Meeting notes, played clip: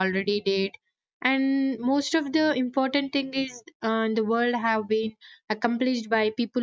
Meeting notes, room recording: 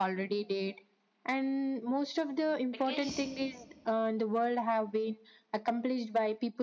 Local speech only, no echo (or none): because